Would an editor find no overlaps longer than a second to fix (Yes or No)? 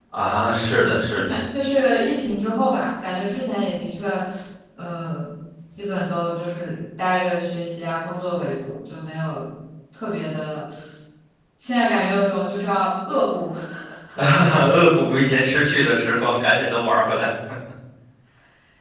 Yes